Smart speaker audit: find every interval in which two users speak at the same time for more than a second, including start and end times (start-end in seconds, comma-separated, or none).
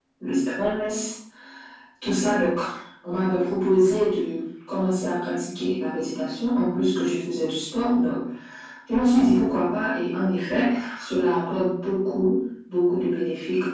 none